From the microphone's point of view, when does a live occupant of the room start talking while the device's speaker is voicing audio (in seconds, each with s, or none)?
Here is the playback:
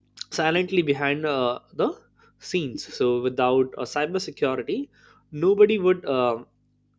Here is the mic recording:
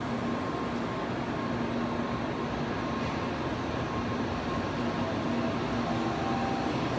none